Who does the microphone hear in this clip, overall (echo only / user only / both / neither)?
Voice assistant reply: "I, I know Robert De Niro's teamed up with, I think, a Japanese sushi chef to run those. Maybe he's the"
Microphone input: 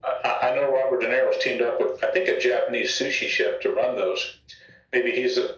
echo only